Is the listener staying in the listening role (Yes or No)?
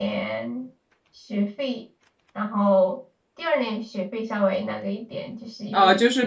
No